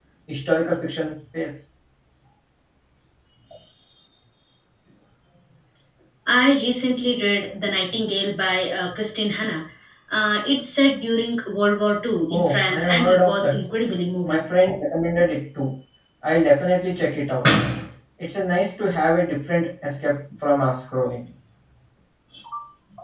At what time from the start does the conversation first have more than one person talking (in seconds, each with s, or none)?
12.3 s